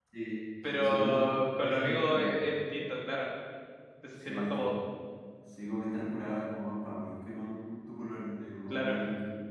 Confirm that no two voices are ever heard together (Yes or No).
No